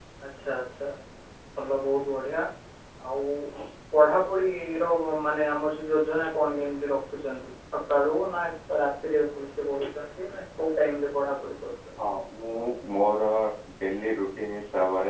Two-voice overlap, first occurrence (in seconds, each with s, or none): none